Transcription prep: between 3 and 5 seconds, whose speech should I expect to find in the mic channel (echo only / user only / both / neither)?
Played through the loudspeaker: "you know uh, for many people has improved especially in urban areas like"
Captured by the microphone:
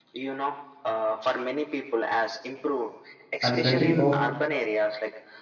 both